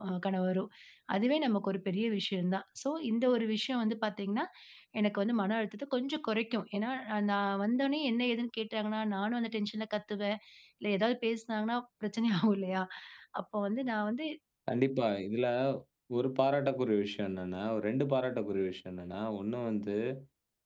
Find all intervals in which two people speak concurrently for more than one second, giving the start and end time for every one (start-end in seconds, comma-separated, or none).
none